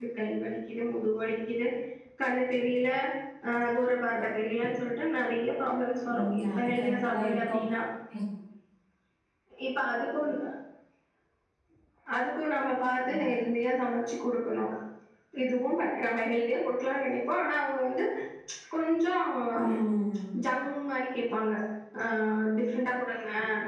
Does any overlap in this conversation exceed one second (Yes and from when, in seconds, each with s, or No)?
Yes, from 6.2 s